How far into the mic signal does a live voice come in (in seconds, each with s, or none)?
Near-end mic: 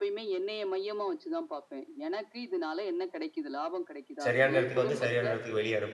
4.3 s